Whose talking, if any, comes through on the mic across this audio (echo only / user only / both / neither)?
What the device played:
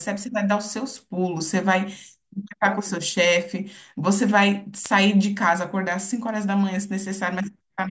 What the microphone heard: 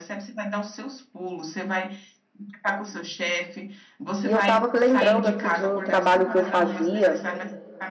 both